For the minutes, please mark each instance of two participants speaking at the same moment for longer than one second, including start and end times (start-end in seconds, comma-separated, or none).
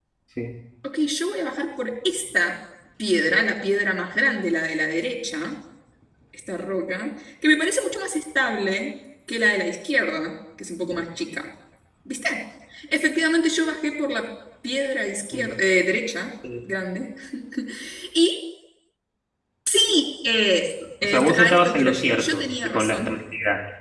21.0-23.2